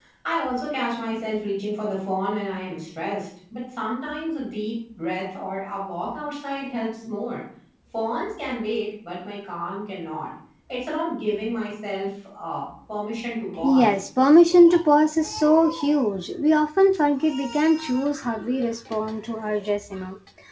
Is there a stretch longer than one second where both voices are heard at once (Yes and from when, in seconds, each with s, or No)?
No